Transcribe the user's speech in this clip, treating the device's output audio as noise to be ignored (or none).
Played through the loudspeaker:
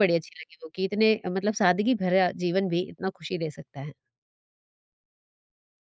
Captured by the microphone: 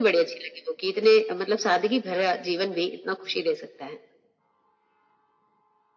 none